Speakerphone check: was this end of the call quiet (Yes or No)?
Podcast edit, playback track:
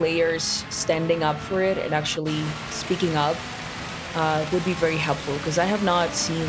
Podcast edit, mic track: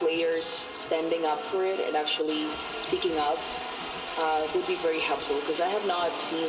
Yes